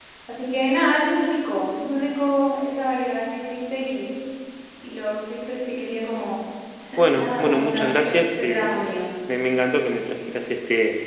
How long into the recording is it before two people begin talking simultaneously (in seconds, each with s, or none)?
7.2 s